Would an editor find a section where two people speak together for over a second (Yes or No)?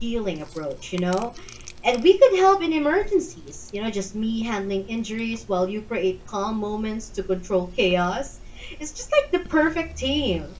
No